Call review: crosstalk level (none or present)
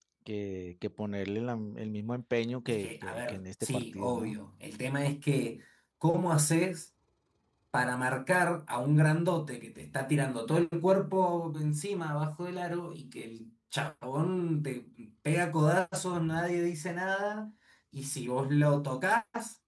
present